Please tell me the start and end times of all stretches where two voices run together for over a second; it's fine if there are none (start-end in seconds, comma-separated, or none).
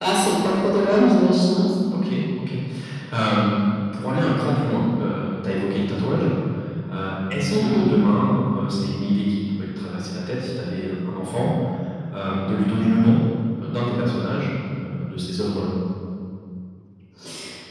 none